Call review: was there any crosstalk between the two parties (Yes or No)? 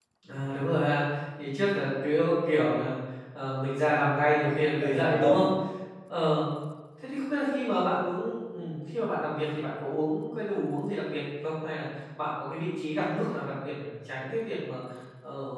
Yes